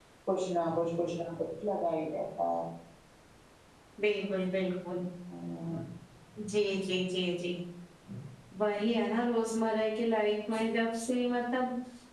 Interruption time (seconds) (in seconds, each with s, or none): none